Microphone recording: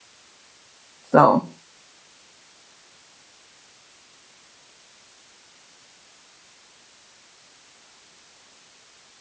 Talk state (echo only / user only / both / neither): user only